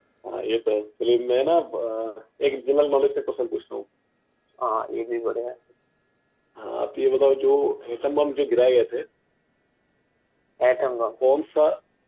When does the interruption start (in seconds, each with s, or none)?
none